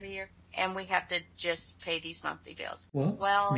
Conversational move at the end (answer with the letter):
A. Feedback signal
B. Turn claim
B